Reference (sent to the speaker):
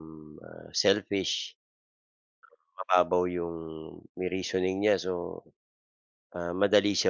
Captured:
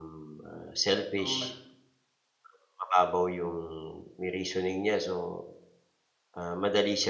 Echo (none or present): present